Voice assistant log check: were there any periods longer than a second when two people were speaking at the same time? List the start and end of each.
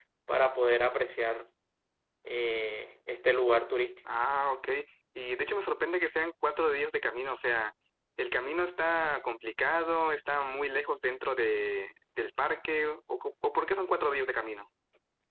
none

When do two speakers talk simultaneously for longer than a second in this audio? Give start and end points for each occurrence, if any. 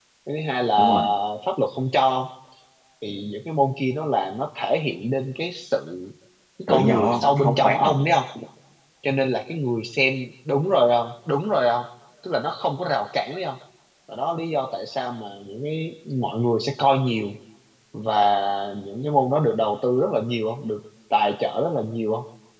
6.7-7.9

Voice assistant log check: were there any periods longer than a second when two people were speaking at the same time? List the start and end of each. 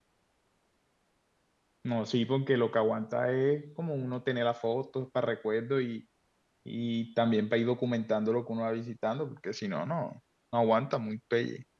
none

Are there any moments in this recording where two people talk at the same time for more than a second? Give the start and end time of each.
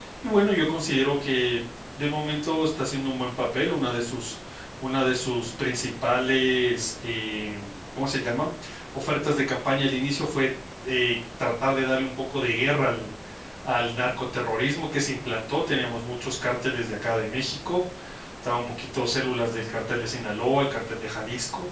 none

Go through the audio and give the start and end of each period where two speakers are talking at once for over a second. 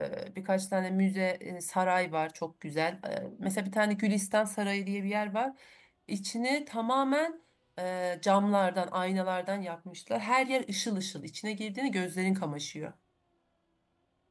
none

